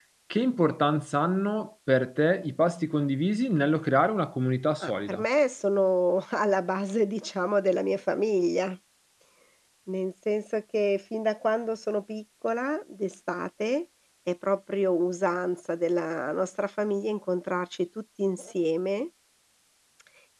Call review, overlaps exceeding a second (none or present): none